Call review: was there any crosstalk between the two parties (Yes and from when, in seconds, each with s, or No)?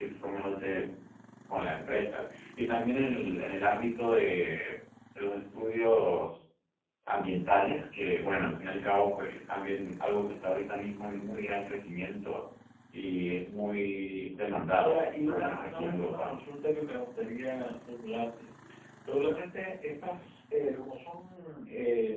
Yes, from 14.8 s